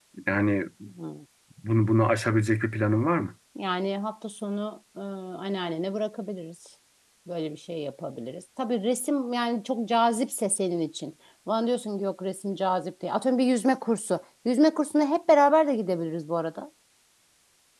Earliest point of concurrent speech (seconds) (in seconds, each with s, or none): none